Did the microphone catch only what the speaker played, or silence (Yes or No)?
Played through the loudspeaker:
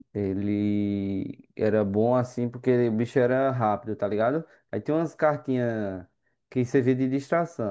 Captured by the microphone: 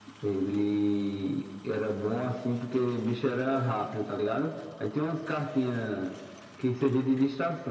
Yes